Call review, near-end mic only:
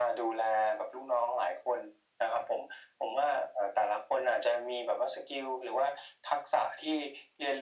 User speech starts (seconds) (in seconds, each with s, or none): none